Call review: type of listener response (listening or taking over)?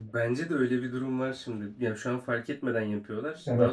taking over